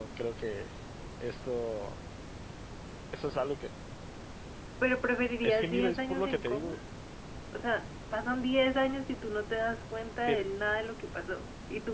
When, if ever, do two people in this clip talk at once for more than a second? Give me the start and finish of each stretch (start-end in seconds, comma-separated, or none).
5.4-6.7